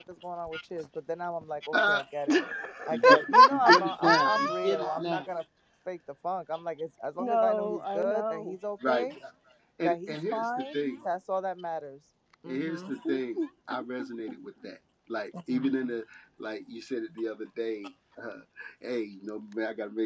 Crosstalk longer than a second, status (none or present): present